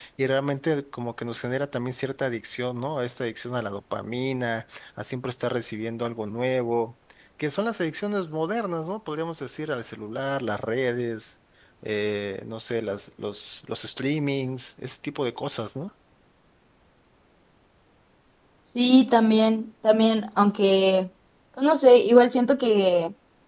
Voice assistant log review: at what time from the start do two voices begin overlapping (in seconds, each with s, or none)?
none